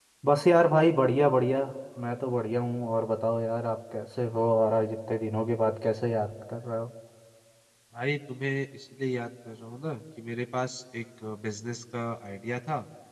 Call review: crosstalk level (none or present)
none